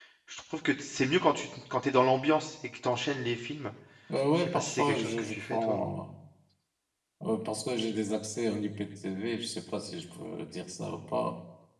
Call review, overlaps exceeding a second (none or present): present